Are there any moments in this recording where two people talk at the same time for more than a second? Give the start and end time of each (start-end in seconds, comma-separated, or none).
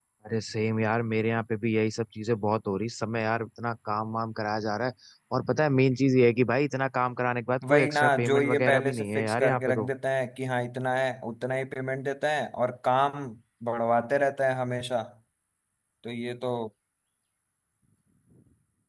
7.7-9.9